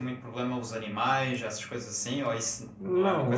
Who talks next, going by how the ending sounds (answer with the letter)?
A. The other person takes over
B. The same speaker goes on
A